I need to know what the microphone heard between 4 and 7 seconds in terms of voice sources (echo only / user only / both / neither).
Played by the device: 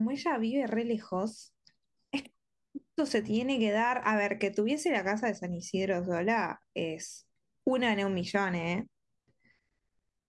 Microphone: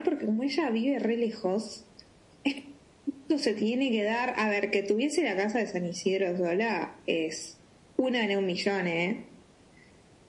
echo only